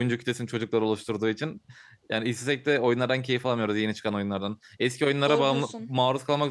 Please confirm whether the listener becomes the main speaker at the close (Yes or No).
No